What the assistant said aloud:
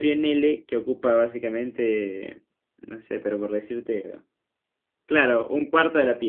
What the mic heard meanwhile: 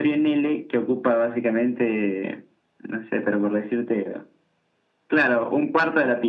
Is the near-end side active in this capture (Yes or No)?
No